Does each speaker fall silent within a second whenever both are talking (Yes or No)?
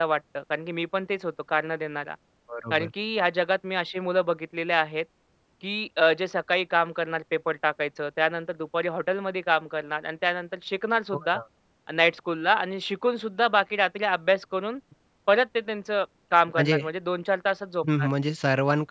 Yes